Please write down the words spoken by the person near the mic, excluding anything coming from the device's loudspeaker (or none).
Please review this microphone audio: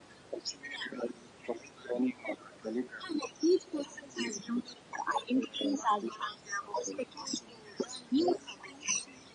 none